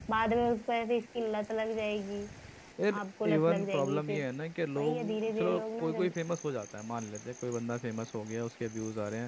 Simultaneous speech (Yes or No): Yes